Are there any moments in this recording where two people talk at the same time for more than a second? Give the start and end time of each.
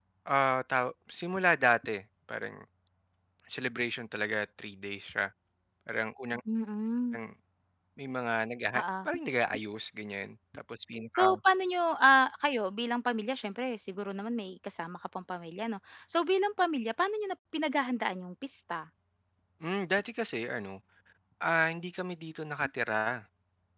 none

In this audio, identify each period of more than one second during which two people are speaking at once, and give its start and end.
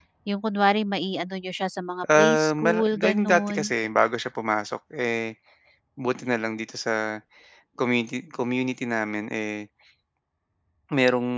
2.2-3.7

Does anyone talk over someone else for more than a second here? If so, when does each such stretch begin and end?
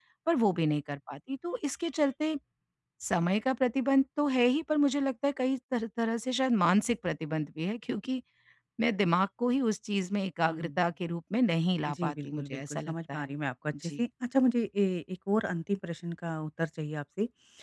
11.9-13.3

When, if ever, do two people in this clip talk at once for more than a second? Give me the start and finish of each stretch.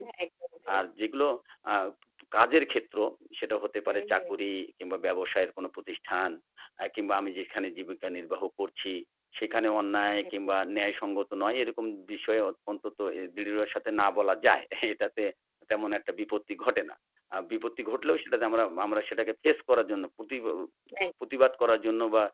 none

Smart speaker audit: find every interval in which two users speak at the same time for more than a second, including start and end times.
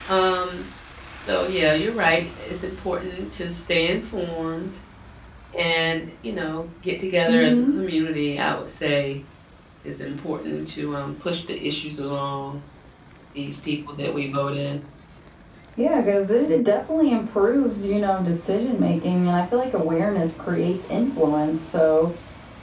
none

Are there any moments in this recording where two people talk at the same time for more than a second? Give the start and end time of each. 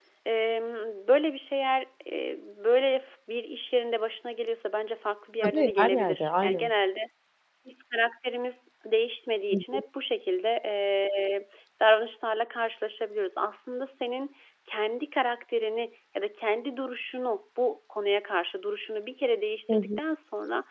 5.4-6.7

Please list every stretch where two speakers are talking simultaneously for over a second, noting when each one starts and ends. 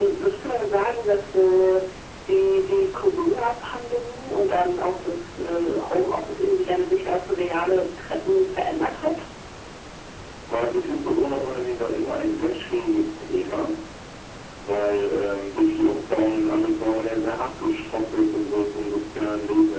none

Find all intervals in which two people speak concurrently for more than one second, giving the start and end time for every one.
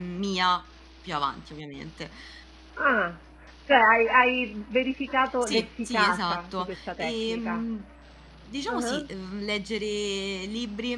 5.4-7.6

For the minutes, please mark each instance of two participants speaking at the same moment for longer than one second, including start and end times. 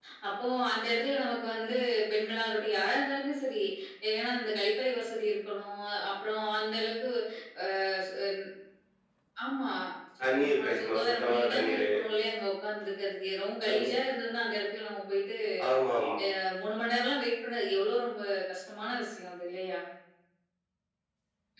10.3-11.9

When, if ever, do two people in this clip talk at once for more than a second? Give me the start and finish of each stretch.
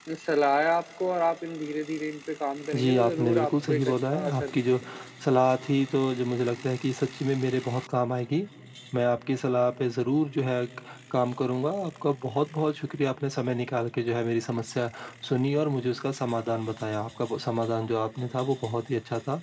2.7-4.6

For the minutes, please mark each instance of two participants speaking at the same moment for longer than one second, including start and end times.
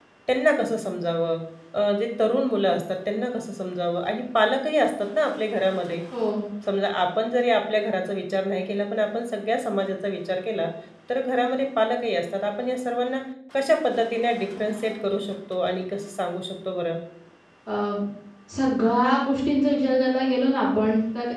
none

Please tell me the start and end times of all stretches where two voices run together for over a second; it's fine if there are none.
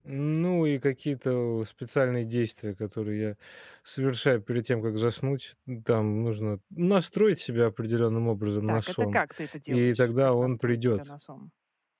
9.7-11.0

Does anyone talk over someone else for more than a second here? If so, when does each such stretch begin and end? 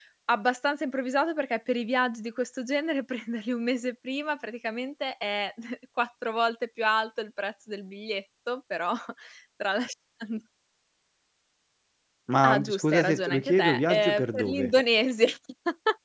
12.4-14.7

